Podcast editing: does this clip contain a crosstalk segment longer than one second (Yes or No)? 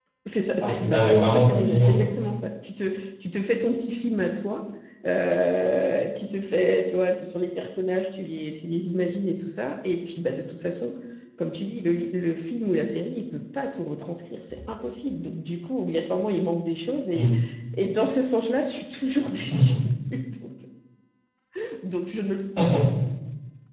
Yes